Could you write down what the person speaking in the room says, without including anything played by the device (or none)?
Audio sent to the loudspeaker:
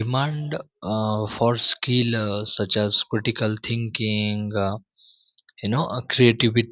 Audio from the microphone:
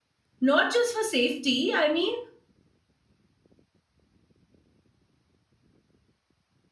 not just for safety i mean